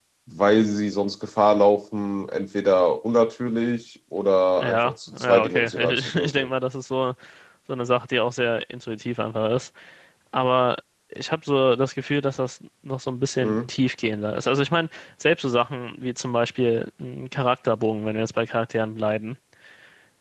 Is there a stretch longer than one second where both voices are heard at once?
Yes, from 4.6 s

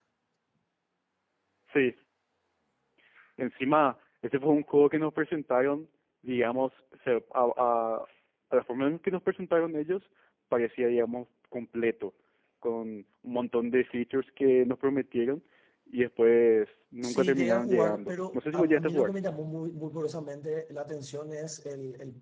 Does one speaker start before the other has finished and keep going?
Yes, from 17.0 s

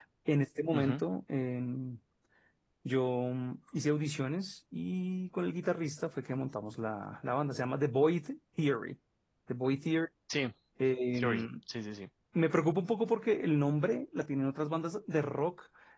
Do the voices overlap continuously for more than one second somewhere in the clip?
No

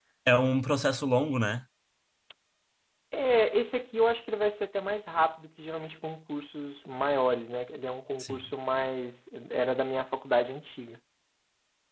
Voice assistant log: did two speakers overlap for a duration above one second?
No

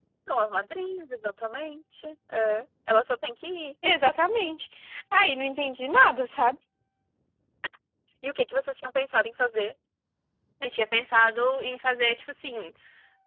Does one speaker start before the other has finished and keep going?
No

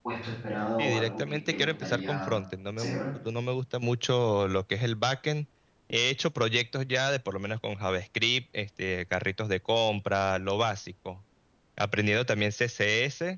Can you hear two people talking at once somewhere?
Yes, from 0.8 s

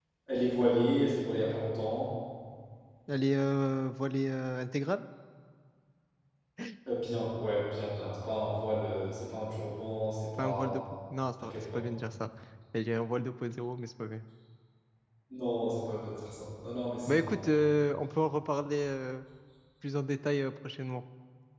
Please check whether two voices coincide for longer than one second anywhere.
No

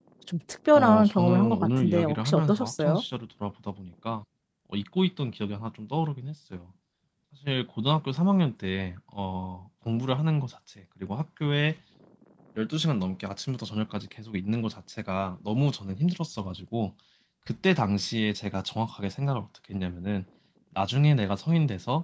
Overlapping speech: Yes, from 0.8 s

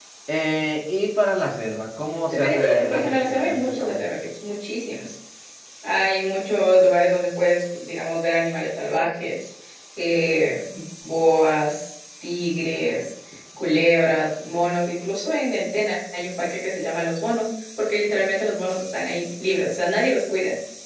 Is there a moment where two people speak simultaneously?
Yes, from 2.3 s

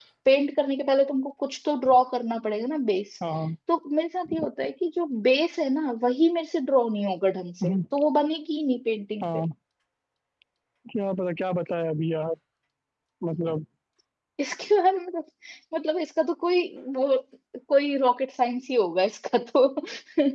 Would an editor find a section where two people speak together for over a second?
No

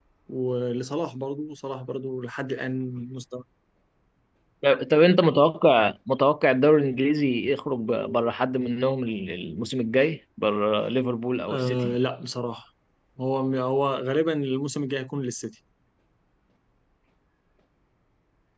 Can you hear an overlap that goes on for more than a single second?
No

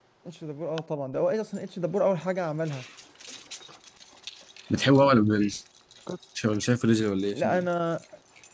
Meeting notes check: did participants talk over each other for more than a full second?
No

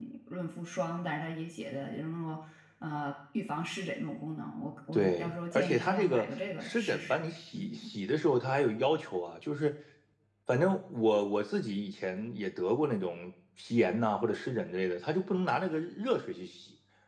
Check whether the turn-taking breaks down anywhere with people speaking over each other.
Yes, from 4.9 s

